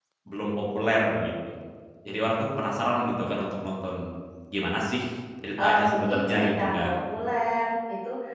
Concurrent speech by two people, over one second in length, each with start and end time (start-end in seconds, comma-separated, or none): 5.6-7.0